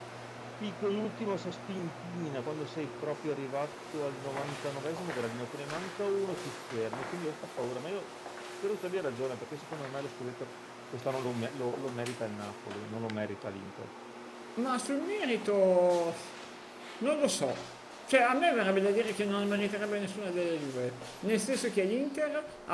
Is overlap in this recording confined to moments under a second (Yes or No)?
Yes